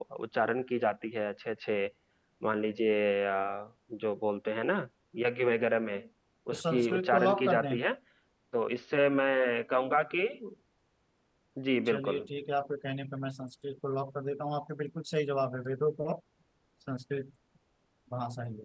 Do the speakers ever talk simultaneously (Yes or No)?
Yes